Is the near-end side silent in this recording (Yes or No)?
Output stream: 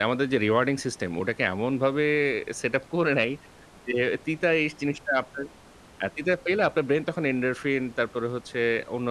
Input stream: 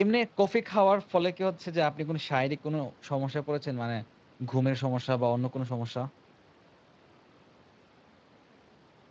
No